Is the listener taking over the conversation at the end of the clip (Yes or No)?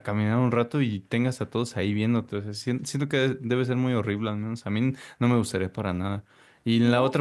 No